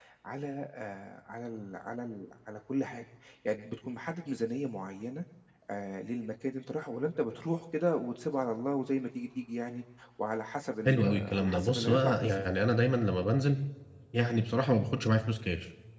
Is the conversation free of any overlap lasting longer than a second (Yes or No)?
No